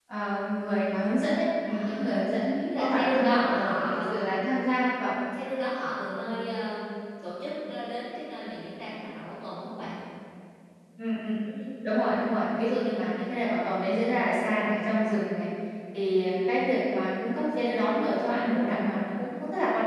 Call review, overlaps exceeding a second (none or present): present